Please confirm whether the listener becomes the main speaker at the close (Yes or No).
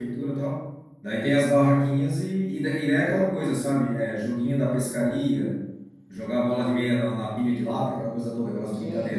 Yes